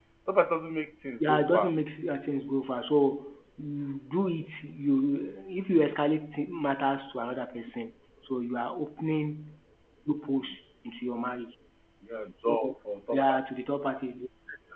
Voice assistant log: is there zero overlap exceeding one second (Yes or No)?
Yes